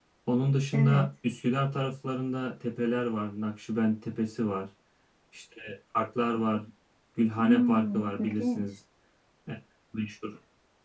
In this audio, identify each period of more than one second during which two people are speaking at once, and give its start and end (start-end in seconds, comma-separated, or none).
7.4-8.7